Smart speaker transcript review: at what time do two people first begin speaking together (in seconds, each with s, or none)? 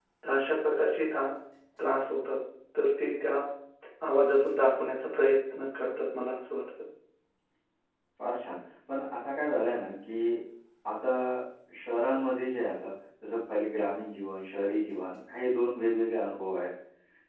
none